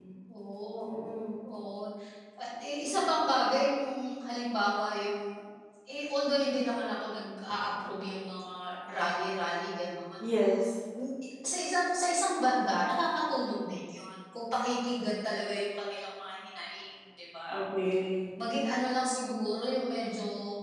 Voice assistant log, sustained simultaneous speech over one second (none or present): none